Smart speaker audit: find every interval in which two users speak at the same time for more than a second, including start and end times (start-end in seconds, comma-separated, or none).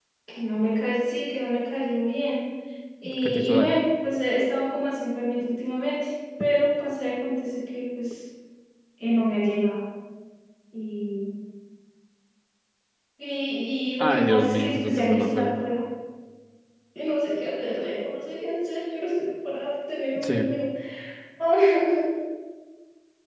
14.0-15.5